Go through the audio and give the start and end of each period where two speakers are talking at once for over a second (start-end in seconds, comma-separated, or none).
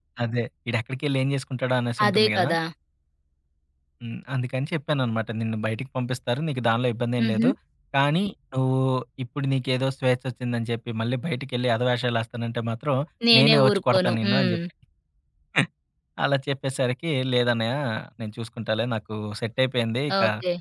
13.4-14.6